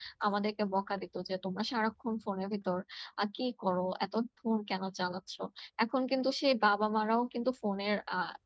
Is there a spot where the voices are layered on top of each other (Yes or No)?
No